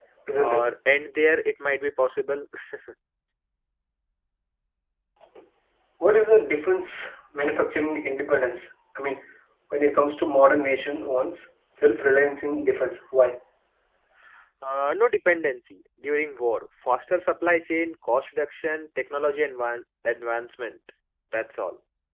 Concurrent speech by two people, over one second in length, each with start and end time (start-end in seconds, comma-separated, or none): none